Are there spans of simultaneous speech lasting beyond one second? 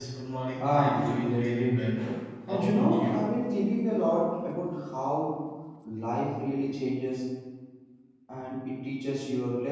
Yes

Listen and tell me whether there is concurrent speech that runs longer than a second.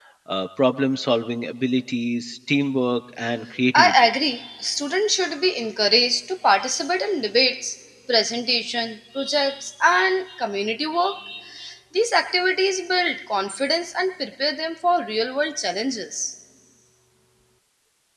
No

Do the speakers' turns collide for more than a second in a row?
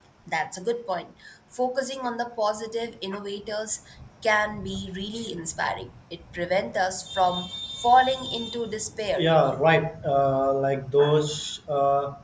No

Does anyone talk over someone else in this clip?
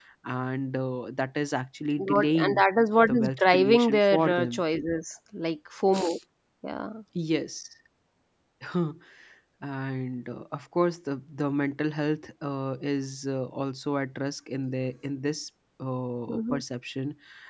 Yes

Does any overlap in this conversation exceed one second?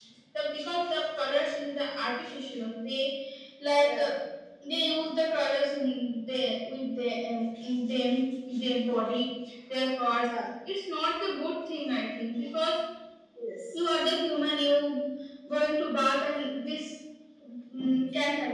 No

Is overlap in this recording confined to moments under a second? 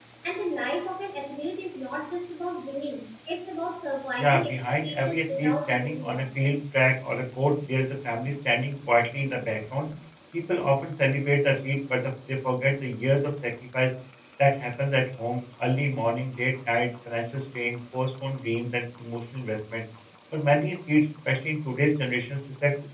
No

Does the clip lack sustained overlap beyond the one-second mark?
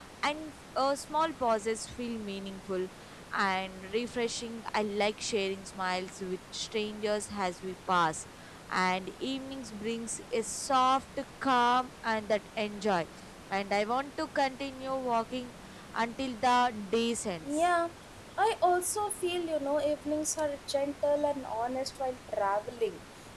Yes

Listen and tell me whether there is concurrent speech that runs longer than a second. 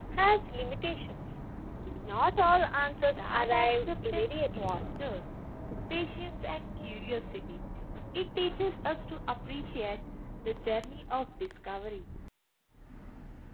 Yes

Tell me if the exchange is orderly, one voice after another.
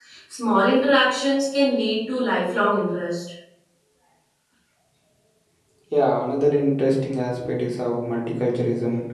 Yes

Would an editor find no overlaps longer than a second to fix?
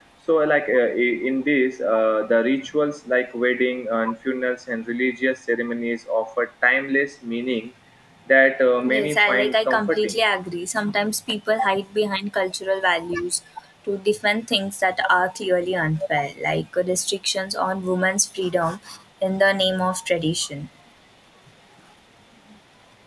No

